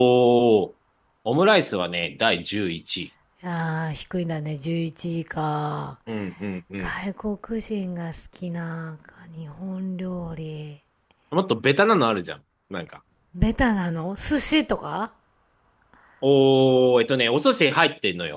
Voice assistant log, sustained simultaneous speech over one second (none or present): none